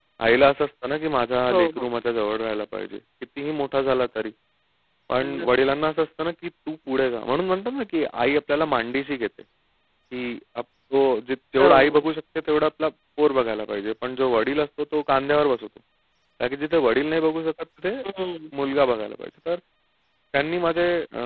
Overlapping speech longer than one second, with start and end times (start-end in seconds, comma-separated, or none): none